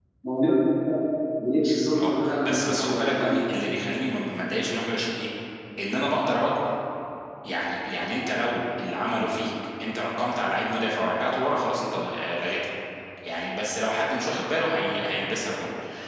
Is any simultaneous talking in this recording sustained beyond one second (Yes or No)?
Yes